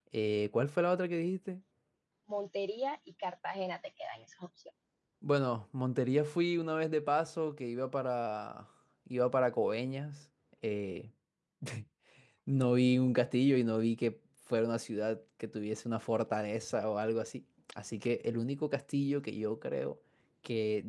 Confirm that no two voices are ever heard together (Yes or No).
Yes